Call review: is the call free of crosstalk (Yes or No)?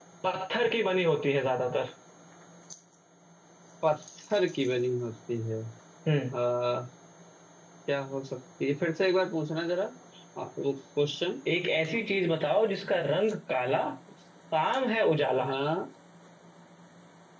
Yes